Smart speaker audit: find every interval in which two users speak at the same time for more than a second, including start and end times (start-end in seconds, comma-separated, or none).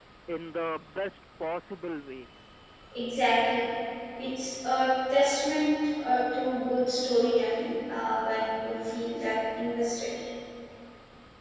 none